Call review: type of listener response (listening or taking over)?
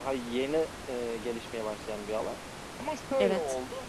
listening